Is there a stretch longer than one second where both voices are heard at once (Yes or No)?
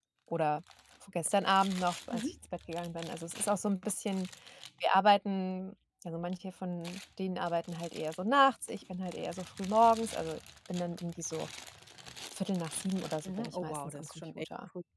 Yes